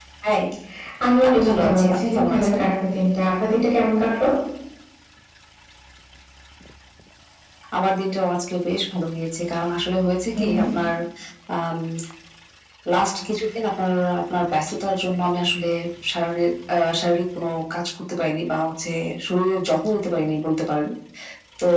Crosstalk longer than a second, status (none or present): present